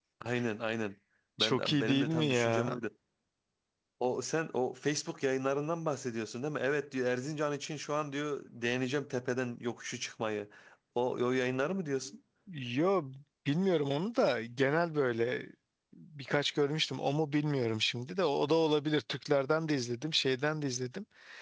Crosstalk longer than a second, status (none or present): present